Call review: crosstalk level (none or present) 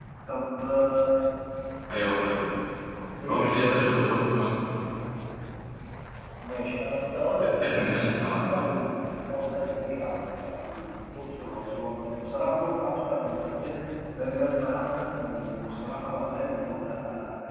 present